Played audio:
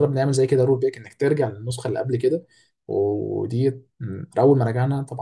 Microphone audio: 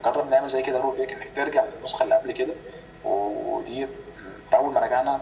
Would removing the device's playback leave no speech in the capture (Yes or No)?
Yes